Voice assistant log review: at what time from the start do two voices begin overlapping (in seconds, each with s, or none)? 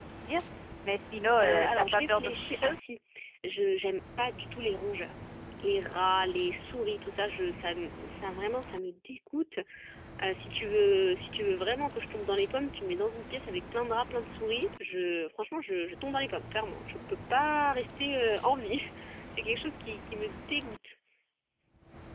1.4 s